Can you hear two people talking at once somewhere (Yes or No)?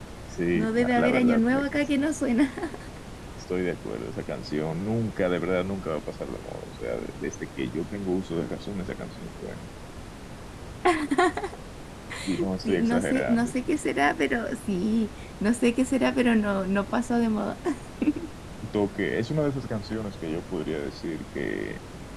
Yes